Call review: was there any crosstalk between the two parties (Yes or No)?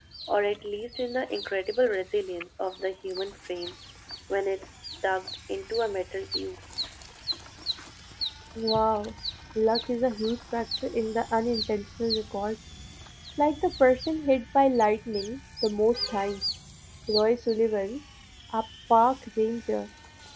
No